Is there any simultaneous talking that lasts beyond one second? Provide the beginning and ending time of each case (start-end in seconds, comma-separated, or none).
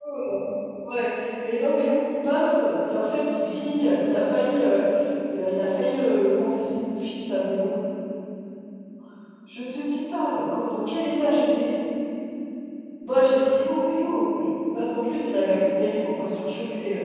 none